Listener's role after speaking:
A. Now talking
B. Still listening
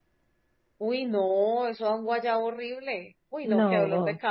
B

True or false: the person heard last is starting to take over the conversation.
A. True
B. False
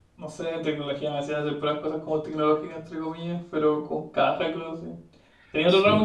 B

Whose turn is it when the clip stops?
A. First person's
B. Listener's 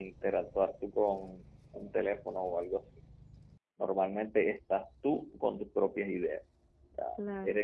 A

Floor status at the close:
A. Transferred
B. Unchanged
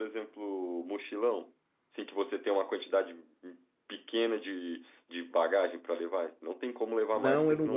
A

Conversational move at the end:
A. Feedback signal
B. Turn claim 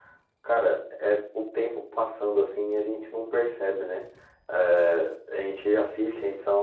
A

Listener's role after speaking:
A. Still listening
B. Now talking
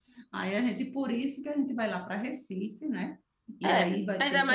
B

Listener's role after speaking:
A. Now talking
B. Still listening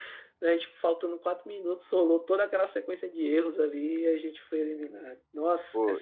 A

